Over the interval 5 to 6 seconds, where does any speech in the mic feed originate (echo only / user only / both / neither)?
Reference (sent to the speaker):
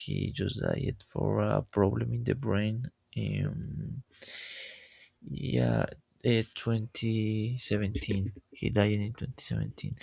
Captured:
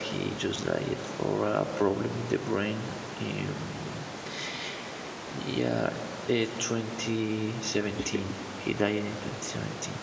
echo only